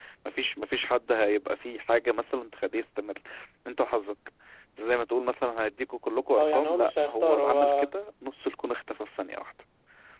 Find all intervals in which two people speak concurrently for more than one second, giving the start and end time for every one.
6.4-7.9

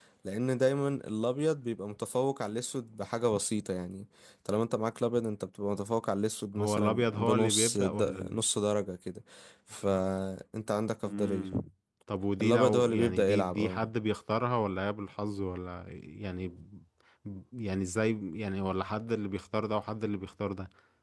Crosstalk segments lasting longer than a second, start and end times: 6.5-8.4, 12.4-13.8

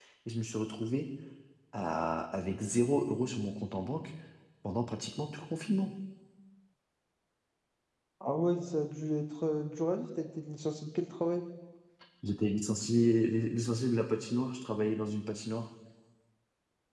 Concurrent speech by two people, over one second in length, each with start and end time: none

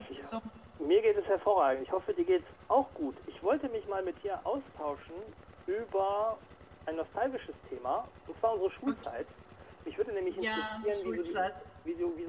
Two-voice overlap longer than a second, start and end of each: 10.3-11.5

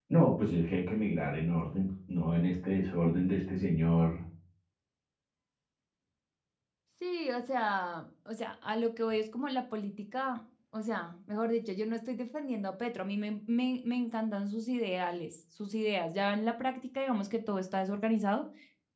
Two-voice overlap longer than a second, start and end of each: none

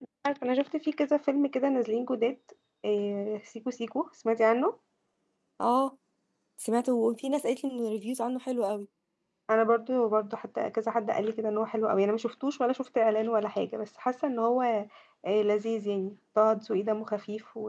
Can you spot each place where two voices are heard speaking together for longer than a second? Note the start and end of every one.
none

